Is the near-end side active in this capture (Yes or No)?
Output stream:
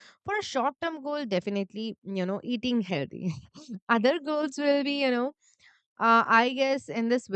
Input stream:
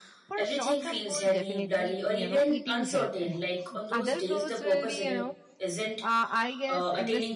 Yes